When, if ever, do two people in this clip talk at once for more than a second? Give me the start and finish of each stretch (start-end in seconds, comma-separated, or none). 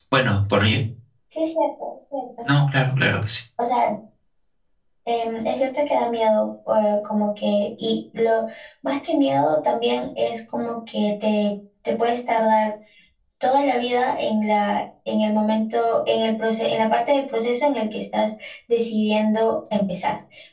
none